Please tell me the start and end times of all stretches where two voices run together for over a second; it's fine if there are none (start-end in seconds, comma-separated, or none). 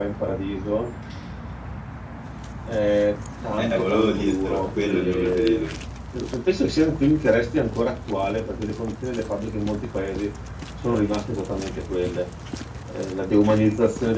3.6-5.7